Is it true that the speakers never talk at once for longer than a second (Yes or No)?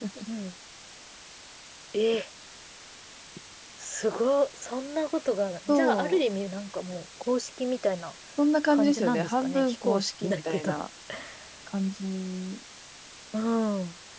No